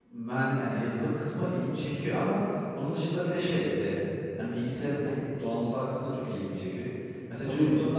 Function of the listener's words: listening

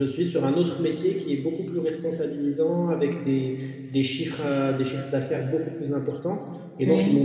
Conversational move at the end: listening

